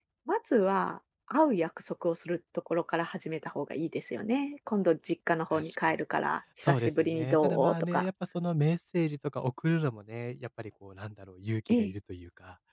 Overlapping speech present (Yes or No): Yes